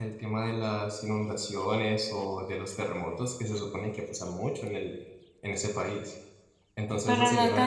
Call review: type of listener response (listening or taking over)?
taking over